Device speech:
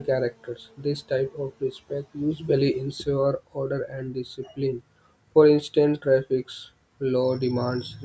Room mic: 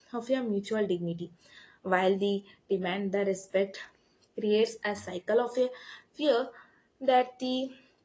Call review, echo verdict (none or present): none